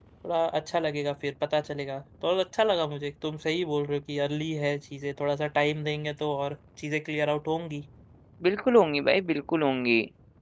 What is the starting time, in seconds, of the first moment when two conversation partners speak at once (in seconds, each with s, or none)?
none